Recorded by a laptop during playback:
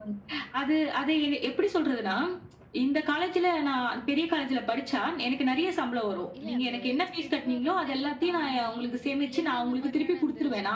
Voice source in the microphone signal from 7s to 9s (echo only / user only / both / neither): both